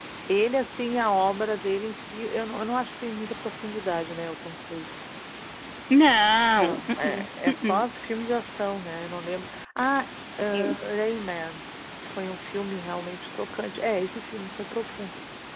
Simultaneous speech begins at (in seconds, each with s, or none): 6.5 s